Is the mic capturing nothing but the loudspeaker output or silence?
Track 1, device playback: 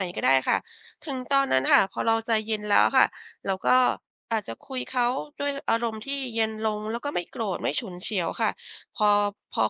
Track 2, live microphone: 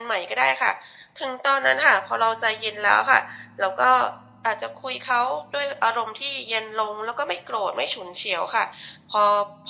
Yes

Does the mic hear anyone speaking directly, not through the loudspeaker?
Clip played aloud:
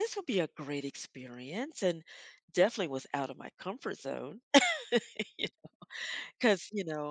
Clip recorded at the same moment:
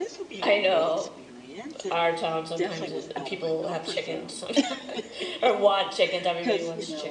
Yes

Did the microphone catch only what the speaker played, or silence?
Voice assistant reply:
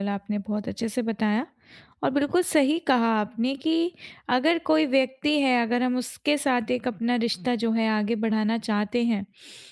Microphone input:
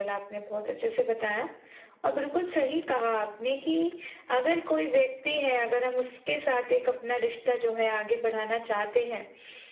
Yes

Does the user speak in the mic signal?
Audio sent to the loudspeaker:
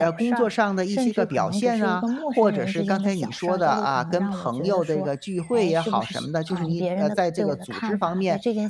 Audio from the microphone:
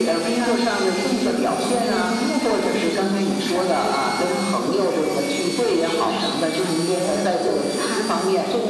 No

